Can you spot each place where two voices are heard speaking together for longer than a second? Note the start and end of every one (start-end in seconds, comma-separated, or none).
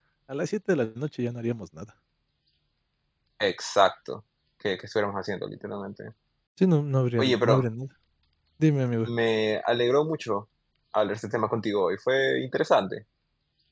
none